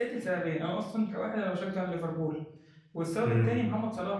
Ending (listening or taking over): listening